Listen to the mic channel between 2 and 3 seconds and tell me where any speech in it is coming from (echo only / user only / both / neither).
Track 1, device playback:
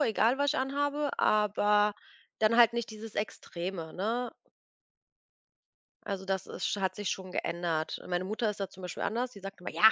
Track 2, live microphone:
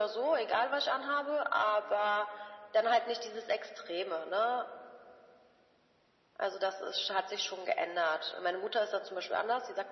echo only